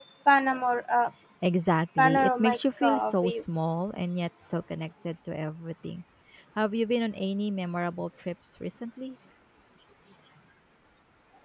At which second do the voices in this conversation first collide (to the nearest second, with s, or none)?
2 s